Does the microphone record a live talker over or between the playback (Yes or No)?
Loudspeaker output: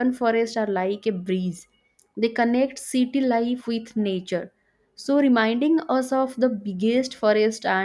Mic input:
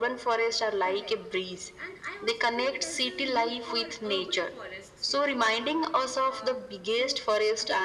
Yes